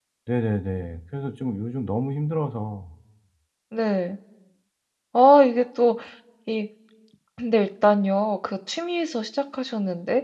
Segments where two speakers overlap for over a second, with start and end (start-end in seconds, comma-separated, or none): none